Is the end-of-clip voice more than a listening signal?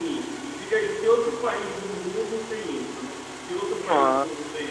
Yes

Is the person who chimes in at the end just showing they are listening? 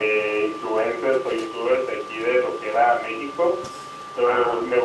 Yes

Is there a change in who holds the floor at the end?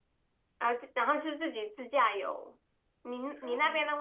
No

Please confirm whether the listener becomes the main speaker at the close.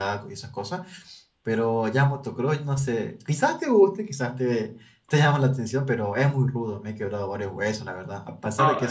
No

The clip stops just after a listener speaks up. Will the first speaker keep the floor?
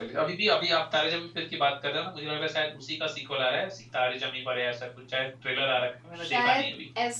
No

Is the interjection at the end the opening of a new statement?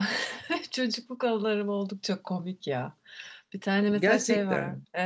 No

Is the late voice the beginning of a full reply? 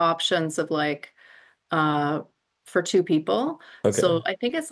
No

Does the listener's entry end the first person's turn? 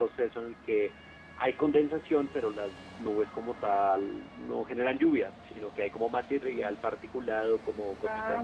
No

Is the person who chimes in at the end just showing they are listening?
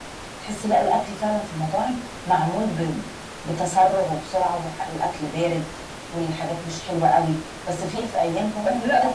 No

